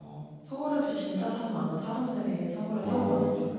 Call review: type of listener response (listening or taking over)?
taking over